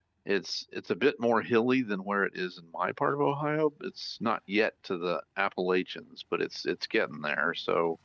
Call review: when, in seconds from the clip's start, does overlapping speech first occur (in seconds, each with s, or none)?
none